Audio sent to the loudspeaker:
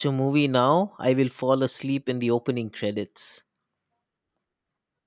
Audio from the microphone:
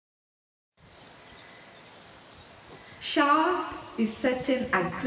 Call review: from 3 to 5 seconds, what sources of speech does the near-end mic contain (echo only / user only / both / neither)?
user only